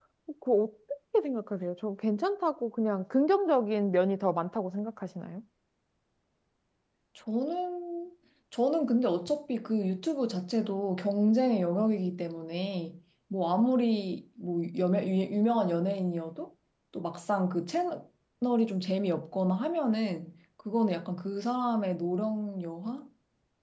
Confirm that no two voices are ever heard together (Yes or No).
Yes